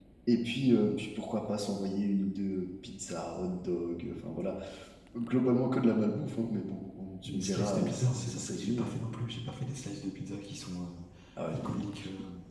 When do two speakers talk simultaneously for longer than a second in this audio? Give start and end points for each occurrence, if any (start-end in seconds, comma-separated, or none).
7.2-9.0